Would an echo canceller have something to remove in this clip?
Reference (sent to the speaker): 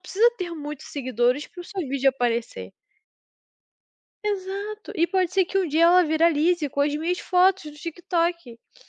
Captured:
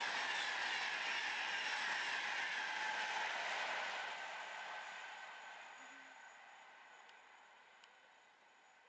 No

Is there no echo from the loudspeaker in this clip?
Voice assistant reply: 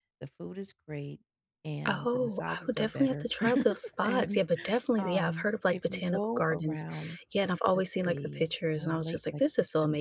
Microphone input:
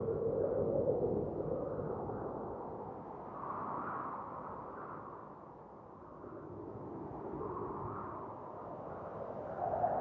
Yes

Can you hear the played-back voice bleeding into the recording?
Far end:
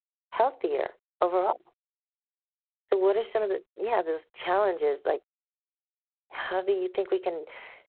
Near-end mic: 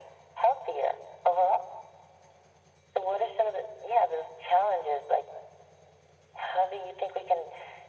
Yes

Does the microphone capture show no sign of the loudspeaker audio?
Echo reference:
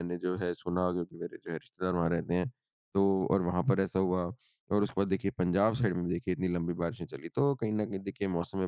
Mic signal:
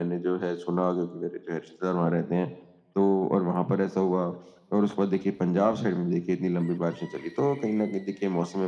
No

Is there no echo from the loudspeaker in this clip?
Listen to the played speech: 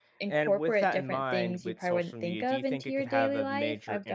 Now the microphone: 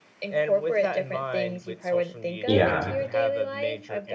No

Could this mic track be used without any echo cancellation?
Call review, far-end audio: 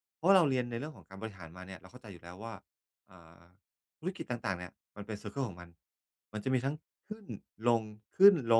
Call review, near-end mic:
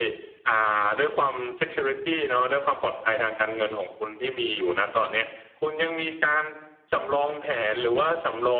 Yes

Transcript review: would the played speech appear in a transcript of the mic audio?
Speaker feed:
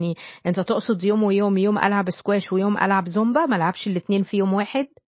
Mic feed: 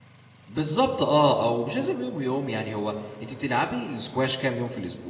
No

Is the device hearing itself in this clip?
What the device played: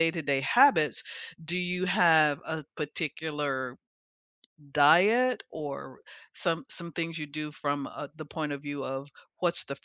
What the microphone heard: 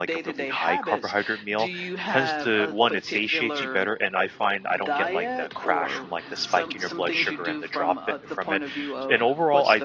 Yes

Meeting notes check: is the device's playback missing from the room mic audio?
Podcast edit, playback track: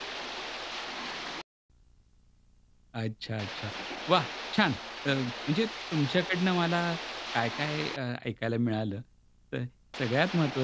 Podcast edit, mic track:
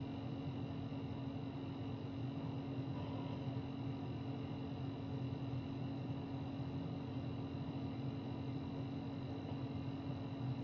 Yes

